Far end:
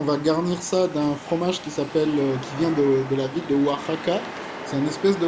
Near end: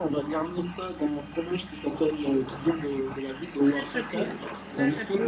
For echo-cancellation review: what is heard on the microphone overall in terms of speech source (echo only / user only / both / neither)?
both